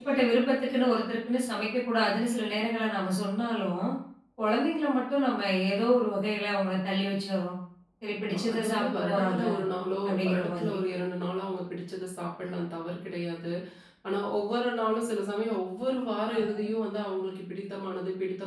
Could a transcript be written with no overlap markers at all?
No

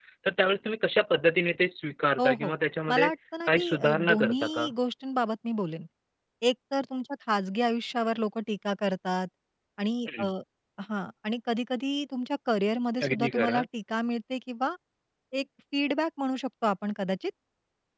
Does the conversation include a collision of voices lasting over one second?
Yes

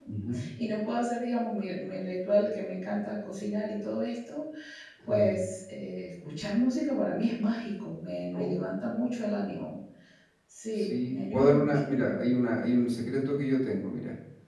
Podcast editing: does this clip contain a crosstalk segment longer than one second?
Yes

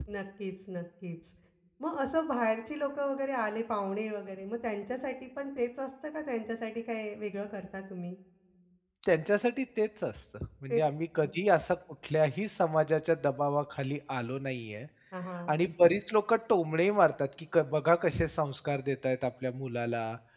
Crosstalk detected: No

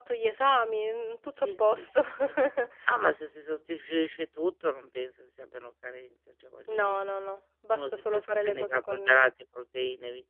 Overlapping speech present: Yes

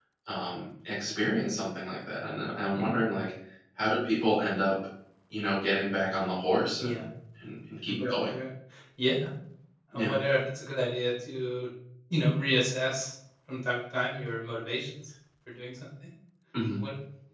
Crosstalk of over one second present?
No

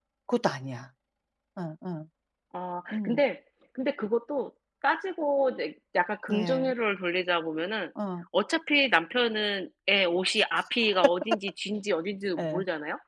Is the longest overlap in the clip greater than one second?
No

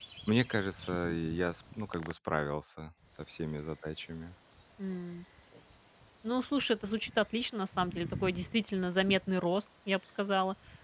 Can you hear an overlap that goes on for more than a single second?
No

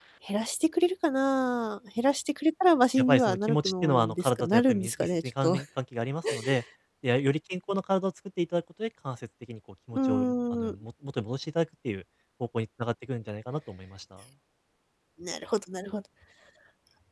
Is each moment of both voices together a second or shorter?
No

